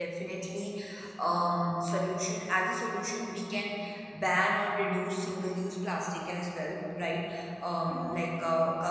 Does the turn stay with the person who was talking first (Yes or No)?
Yes